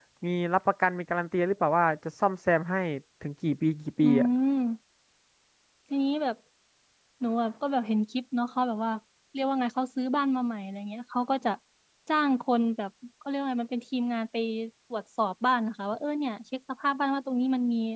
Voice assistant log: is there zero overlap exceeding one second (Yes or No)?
Yes